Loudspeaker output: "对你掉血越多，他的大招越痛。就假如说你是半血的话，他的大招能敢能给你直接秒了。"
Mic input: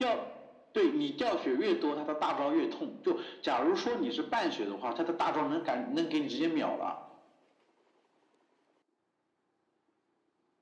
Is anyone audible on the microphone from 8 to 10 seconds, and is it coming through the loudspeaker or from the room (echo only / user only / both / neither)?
neither